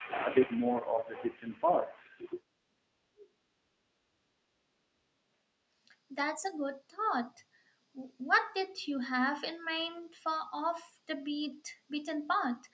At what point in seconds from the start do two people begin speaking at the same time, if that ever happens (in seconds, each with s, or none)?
none